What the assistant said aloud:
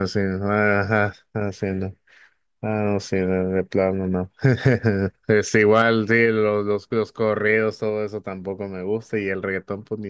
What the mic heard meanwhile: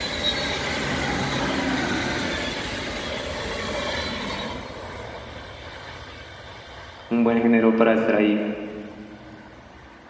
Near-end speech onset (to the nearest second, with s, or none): 7 s